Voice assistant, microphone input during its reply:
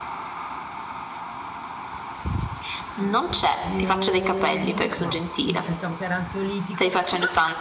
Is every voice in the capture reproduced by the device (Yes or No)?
No